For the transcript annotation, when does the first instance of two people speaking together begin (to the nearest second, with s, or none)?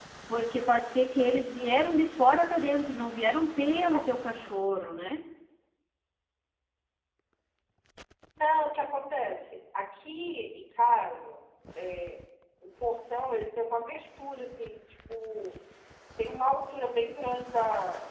none